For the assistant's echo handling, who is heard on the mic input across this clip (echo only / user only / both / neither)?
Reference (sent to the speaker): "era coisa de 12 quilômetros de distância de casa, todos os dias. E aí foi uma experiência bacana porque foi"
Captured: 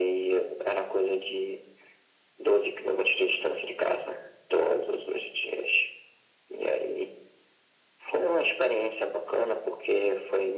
echo only